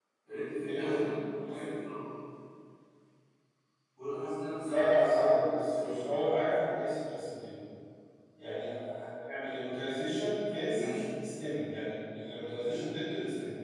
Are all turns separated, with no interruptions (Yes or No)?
No